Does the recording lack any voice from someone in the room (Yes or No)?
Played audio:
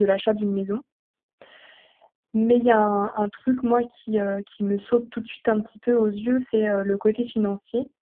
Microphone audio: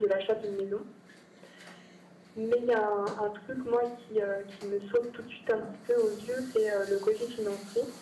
Yes